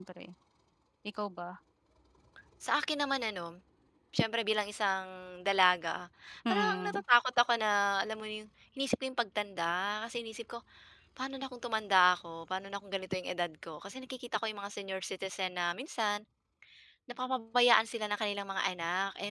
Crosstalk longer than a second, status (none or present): none